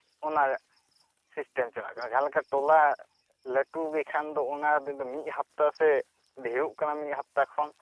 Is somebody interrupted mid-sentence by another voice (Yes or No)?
No